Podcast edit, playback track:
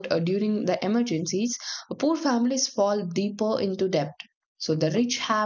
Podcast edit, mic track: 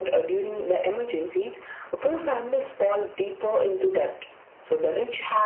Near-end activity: none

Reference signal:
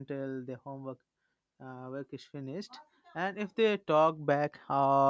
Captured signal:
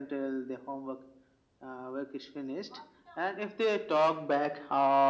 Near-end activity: none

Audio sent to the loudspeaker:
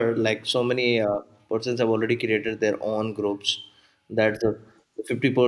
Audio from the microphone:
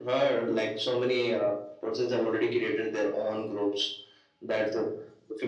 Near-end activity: none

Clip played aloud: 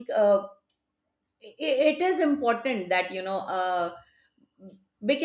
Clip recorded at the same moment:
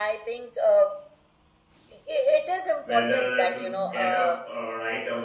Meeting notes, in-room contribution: present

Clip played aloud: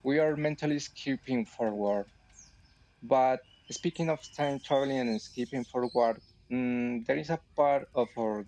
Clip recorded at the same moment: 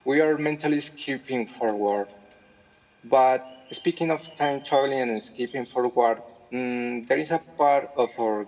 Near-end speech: none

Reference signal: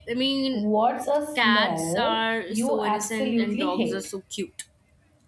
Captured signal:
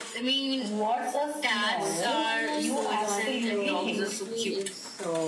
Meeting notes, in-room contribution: present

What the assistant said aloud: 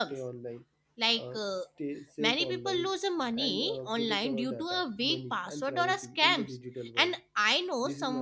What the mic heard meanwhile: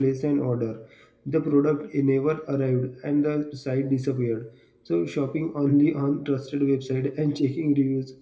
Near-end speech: present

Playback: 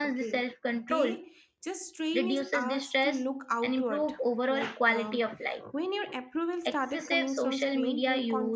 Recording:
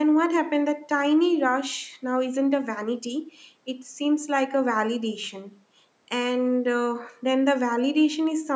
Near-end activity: present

